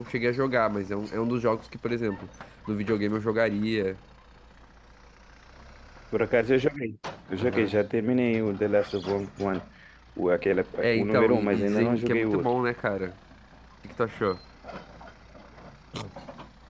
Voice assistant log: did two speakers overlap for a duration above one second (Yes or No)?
Yes